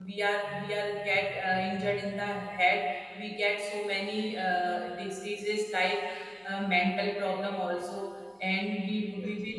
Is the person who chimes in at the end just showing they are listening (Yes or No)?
Yes